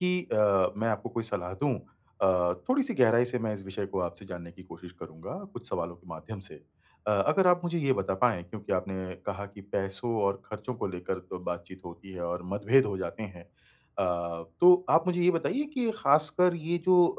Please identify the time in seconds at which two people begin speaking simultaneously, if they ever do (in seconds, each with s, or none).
none